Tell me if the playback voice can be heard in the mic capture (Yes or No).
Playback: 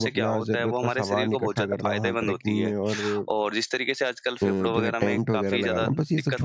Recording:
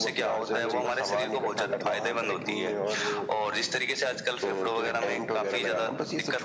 Yes